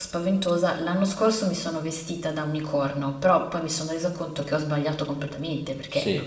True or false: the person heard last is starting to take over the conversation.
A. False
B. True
B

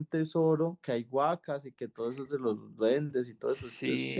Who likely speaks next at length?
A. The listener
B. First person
A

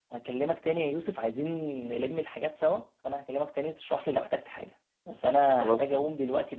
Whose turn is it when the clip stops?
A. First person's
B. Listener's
A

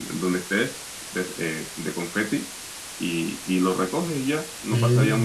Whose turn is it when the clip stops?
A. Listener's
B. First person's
A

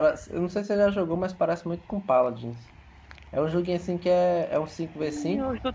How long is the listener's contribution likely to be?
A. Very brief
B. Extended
B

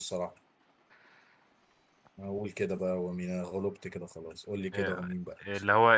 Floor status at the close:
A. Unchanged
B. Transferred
B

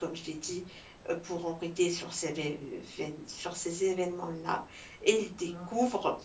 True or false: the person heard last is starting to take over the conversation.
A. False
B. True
A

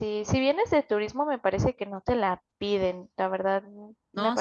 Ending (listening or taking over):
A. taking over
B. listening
A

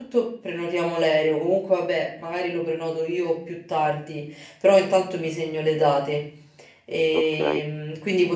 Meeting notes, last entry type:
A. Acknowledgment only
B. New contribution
A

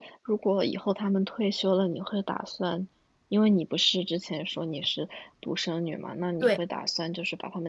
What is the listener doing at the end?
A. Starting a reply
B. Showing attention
B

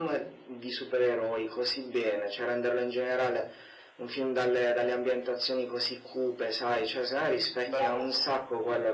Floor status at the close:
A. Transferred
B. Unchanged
B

